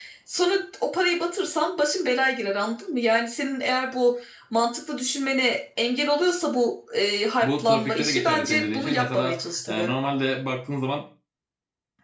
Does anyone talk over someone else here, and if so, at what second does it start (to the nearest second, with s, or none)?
7 s